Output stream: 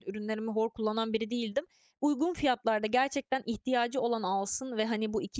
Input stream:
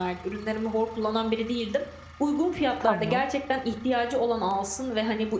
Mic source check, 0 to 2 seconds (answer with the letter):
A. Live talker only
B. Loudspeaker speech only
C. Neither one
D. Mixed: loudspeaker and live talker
B